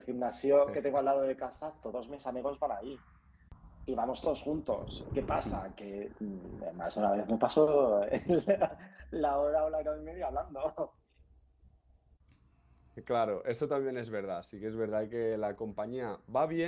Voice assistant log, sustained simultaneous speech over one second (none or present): none